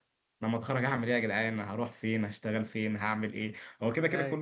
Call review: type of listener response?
listening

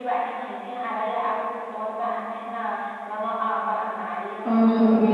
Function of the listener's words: taking over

